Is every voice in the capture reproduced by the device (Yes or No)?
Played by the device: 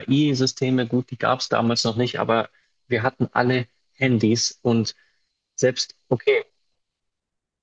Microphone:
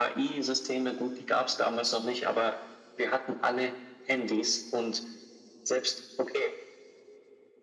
Yes